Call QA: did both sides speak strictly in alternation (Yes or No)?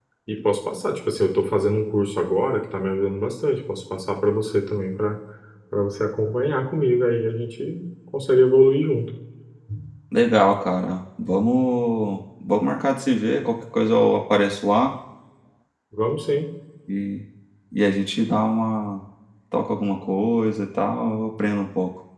Yes